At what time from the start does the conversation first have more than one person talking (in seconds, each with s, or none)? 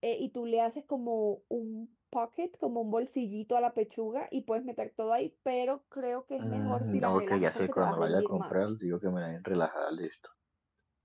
6.4 s